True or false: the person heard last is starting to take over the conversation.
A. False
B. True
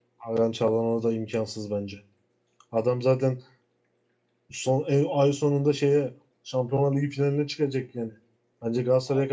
B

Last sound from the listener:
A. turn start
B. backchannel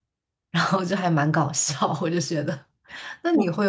B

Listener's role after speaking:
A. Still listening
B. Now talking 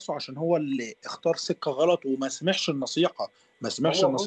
A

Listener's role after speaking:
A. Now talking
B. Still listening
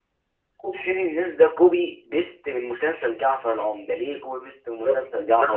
A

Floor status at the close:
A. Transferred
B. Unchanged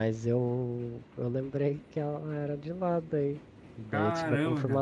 B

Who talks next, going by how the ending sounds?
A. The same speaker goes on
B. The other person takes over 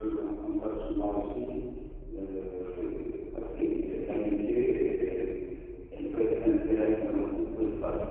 A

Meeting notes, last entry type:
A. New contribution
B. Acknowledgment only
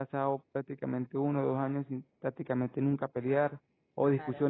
B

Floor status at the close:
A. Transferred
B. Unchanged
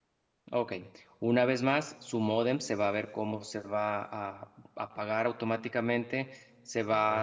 B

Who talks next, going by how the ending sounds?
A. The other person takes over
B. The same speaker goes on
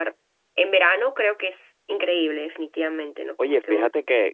A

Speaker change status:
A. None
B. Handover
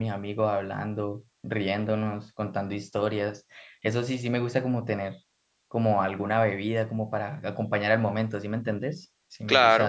B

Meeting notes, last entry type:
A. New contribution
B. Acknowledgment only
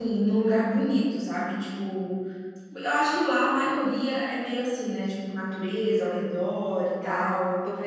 A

